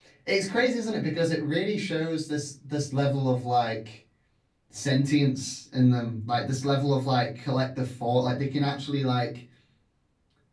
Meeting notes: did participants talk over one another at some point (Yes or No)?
No